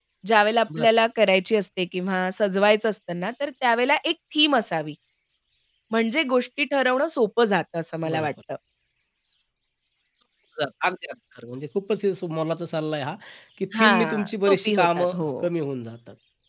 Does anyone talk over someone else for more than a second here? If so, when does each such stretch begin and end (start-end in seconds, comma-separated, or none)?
13.8-15.3